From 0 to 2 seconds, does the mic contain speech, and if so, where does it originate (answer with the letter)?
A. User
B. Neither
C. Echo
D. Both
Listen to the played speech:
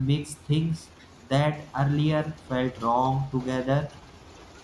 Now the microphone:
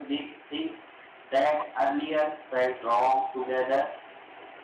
C